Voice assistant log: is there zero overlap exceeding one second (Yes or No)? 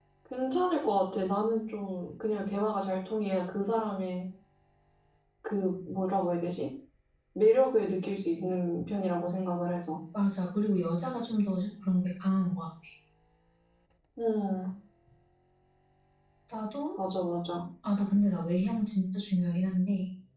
Yes